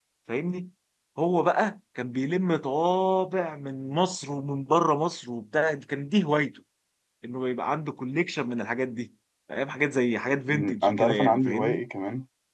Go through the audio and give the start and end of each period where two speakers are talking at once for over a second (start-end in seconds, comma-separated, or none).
10.5-11.8